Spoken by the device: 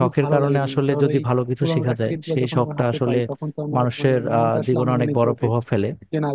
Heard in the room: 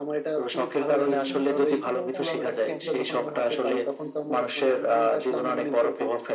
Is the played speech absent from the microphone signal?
No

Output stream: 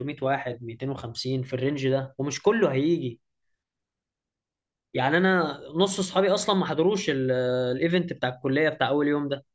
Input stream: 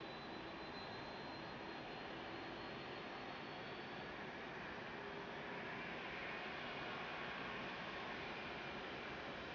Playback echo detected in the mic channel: No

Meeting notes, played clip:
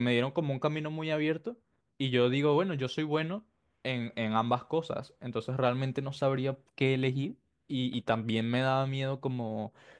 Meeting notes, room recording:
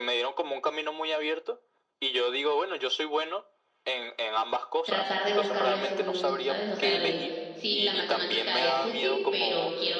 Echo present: Yes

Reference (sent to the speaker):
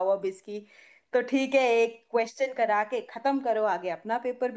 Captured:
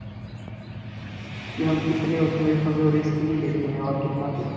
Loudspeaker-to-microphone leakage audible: No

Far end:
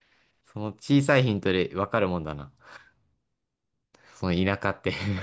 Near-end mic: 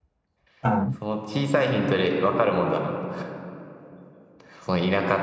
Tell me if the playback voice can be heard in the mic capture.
Yes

